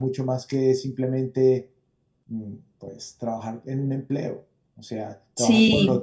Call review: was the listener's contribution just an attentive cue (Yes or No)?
No